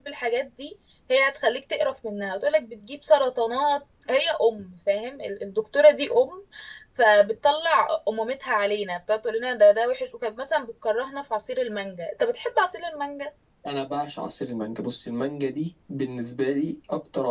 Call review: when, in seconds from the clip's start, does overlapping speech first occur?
none

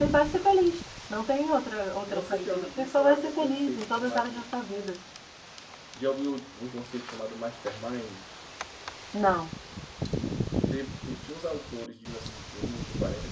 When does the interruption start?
2.0 s

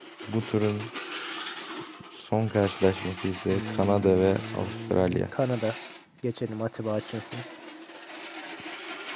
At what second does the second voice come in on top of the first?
3.5 s

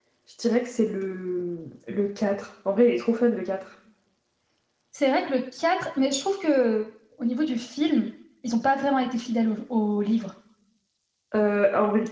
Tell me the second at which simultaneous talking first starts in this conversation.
none

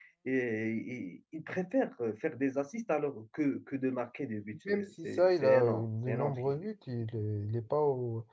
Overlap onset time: 4.6 s

